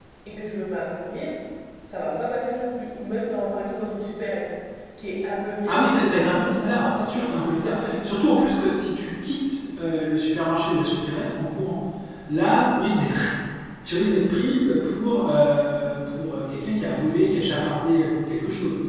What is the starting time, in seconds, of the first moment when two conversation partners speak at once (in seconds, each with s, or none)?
5.7 s